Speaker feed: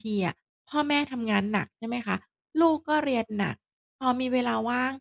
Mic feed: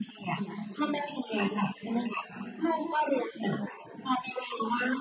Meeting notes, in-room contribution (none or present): none